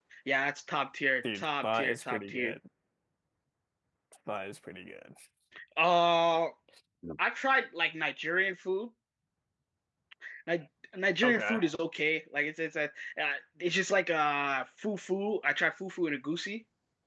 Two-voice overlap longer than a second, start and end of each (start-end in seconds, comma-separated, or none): 1.3-2.5